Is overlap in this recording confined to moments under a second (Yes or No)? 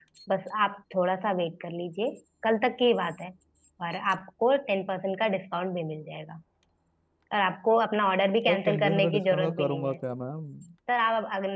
No